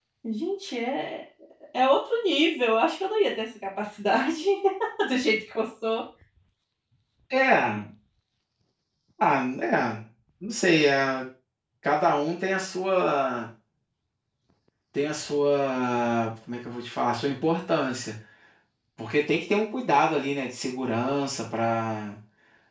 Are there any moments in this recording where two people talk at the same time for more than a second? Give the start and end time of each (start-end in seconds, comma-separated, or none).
none